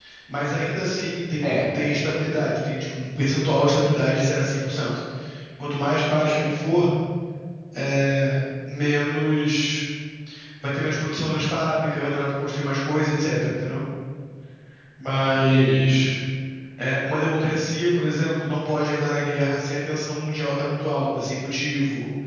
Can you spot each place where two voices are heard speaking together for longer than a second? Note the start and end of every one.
none

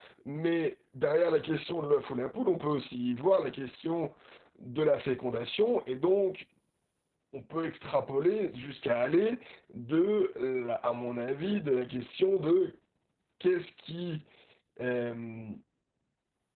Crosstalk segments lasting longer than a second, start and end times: none

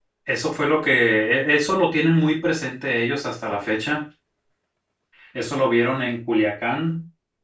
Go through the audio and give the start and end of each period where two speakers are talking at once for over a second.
none

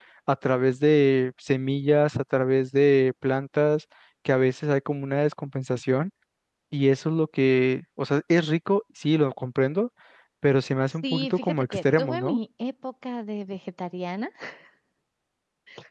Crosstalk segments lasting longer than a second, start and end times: 11.0-12.4

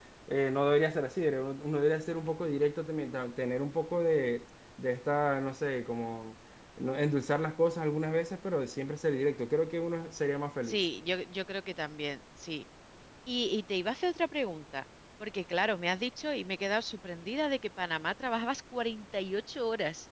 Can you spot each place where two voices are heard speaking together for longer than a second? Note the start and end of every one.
none

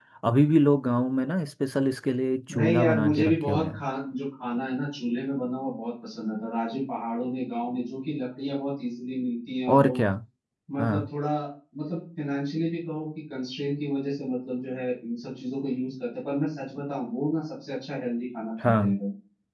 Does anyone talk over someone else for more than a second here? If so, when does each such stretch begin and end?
2.5-3.8

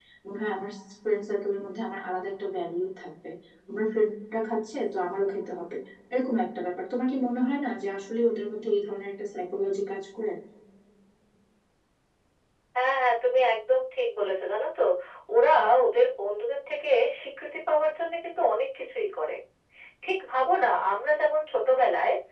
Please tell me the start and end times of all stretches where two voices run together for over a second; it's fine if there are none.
none

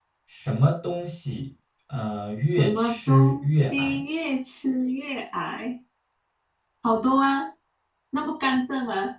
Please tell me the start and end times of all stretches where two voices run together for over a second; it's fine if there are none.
2.5-4.0

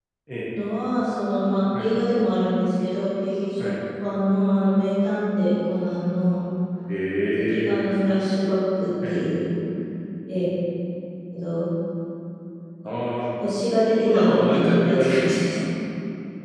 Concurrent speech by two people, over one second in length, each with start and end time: 14.0-15.7

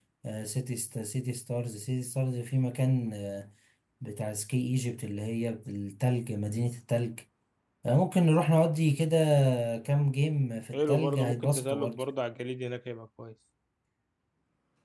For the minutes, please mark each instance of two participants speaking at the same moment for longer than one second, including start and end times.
10.7-12.0

